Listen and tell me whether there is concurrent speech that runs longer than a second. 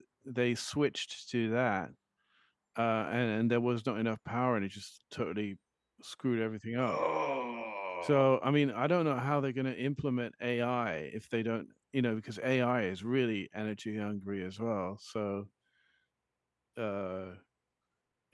No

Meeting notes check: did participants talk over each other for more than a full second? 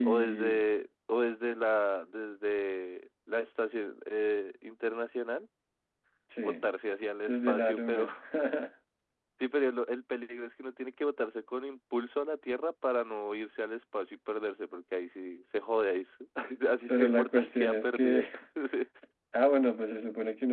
Yes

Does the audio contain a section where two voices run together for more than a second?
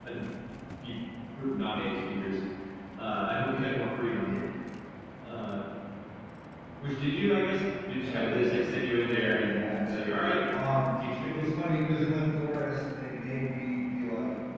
Yes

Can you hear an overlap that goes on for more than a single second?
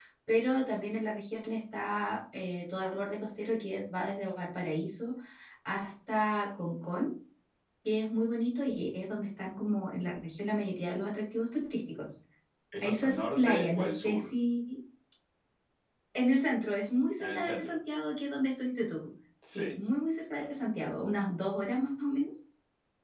Yes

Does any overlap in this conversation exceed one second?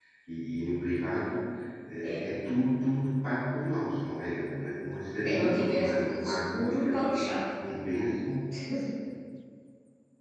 Yes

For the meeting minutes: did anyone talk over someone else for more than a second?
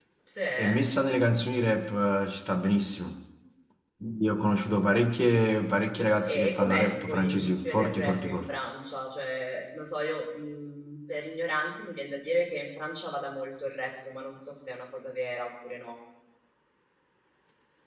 Yes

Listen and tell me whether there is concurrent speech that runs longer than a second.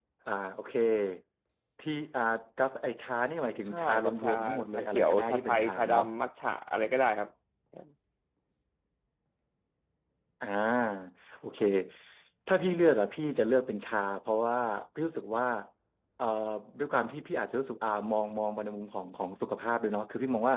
Yes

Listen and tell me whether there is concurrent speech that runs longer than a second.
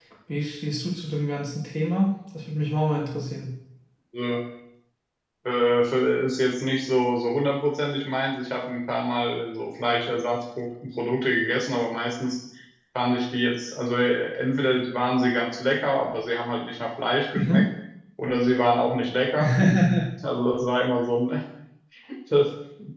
No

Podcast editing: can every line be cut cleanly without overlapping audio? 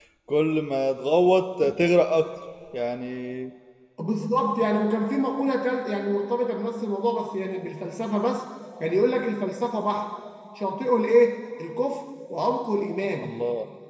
Yes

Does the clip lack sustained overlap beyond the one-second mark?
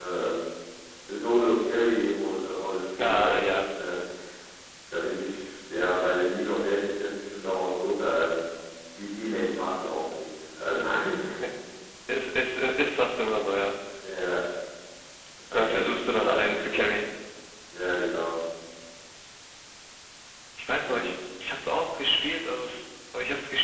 No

